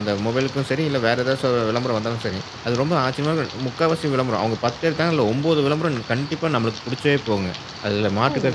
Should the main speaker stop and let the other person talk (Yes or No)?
No